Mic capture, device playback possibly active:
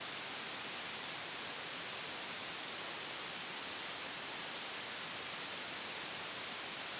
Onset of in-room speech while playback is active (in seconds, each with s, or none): none